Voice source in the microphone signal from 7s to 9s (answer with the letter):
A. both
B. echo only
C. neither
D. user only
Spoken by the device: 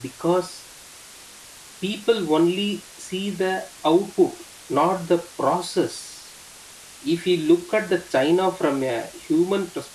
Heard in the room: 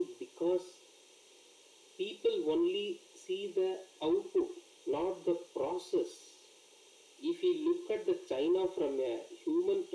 B